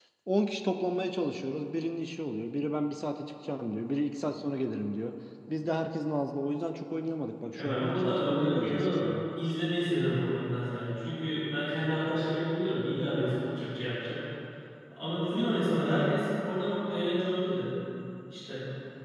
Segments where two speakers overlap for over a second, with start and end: 7.5-9.1

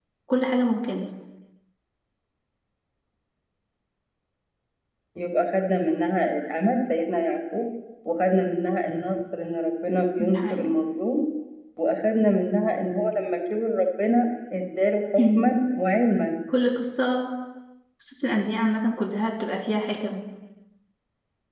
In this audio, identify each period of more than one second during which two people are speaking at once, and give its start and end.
none

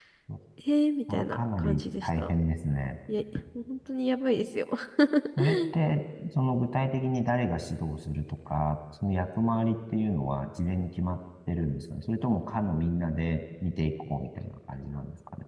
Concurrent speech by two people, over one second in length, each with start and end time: 1.1-2.3

